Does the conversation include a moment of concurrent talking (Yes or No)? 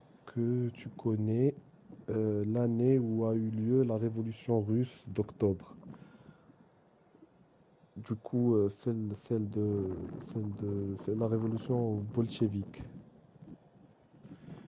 No